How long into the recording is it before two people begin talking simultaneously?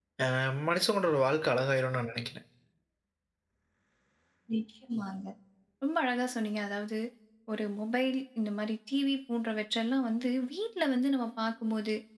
none

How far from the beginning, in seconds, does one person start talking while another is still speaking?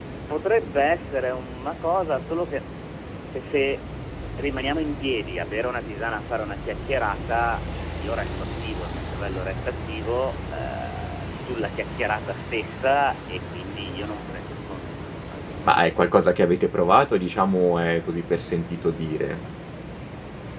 none

